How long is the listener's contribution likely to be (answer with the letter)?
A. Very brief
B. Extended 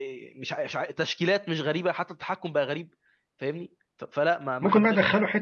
B